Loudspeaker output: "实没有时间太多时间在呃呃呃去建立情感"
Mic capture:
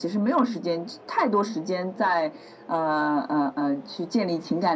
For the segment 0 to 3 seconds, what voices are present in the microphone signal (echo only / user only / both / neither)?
echo only